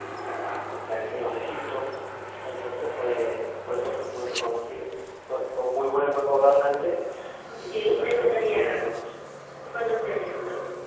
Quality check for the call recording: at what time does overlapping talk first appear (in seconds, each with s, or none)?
7.6 s